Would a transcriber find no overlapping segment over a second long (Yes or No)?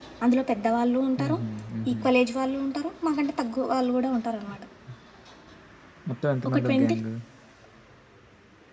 Yes